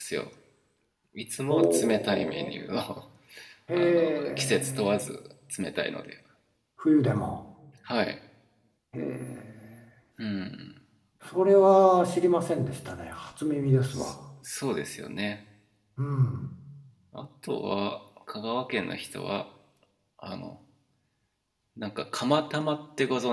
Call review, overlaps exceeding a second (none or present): present